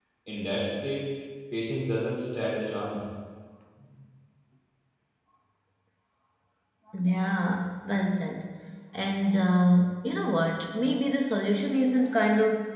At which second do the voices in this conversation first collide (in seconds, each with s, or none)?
none